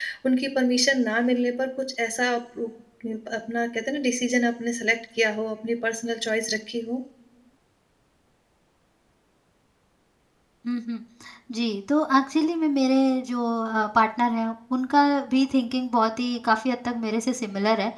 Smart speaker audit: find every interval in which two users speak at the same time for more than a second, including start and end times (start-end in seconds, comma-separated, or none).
none